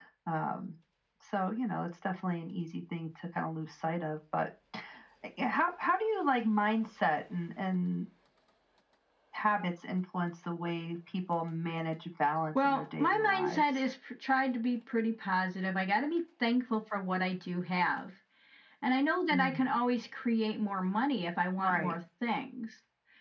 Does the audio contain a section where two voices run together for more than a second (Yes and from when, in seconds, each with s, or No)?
Yes, from 12.6 s